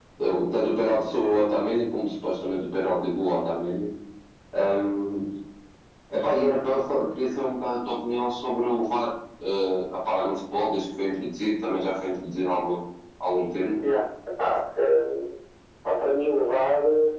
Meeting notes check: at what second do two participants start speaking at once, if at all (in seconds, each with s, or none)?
none